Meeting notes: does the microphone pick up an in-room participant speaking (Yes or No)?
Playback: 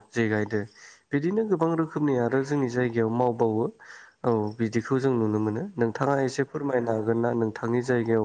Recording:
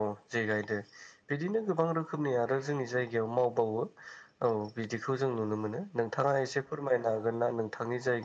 No